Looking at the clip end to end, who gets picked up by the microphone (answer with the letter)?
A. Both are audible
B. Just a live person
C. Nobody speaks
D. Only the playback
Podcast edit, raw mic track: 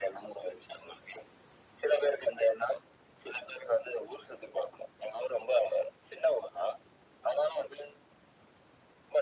D